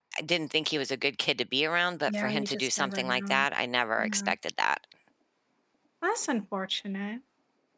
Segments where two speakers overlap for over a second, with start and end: 2.1-3.5

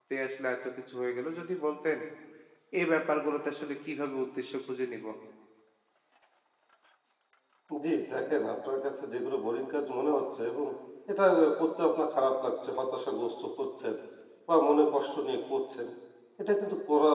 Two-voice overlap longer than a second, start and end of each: none

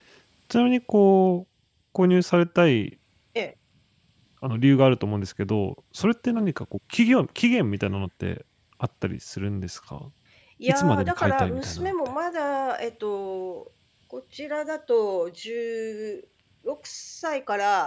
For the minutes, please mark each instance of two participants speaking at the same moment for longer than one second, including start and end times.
10.7-11.9

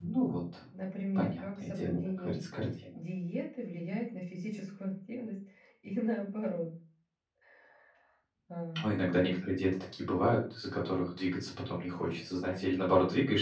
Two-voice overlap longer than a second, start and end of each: 1.1-2.4

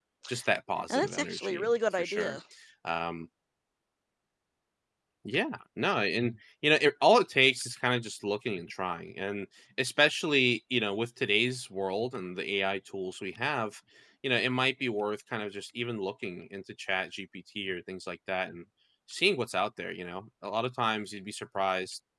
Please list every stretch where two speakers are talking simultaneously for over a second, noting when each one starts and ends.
0.9-2.4

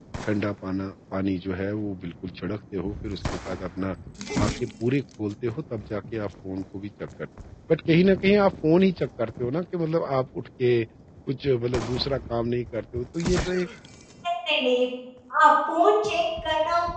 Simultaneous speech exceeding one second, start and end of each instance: none

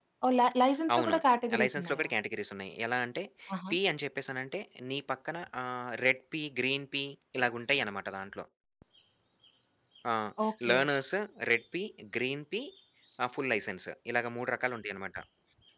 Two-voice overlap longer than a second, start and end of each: none

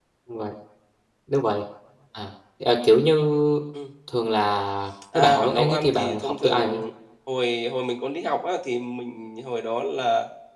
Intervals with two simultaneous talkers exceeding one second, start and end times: 5.1-6.8

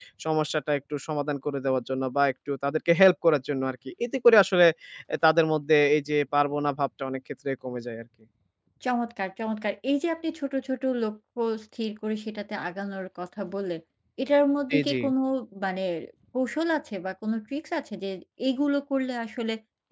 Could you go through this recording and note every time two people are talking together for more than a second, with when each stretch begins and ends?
none

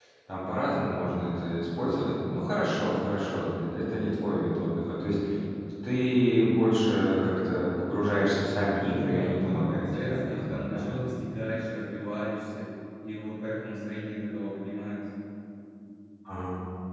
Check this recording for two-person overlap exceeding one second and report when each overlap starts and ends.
9.0-10.9

